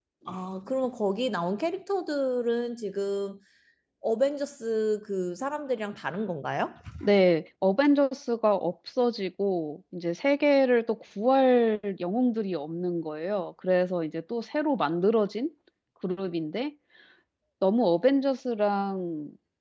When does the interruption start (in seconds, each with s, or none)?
none